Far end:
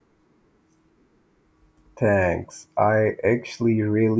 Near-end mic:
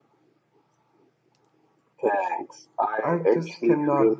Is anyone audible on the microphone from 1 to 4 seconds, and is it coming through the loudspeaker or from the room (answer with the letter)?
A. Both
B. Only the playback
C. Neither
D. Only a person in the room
A